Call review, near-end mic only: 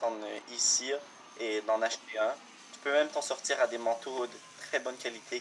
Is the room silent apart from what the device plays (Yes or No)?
Yes